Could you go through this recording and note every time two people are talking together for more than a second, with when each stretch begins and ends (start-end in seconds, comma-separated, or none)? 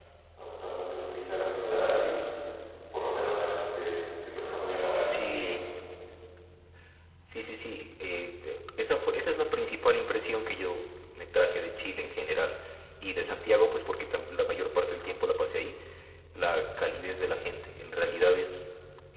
none